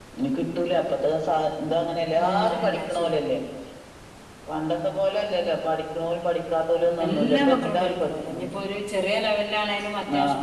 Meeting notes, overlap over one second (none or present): present